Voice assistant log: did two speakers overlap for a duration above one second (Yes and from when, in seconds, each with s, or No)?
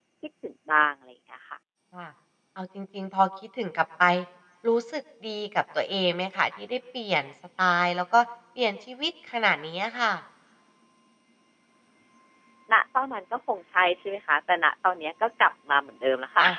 No